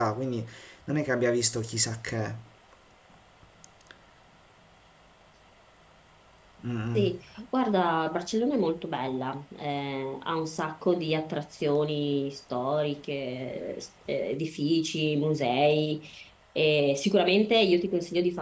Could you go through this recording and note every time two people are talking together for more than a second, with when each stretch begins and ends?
none

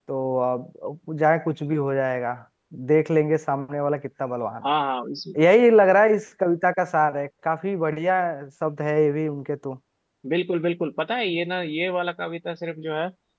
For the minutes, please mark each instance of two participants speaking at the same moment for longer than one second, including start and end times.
none

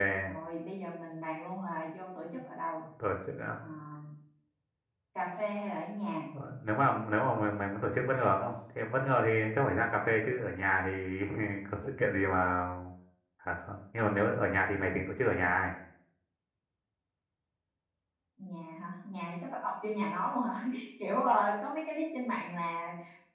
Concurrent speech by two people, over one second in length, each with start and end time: none

